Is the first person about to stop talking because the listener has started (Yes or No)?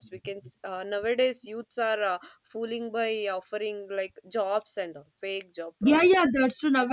Yes